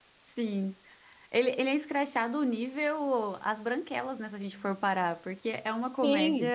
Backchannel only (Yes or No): No